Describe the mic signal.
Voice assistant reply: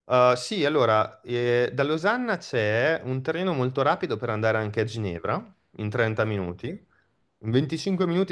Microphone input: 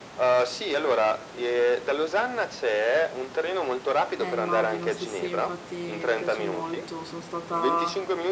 both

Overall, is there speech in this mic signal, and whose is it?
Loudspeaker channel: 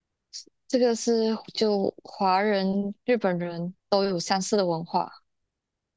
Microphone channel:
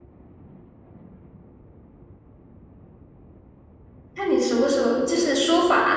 user only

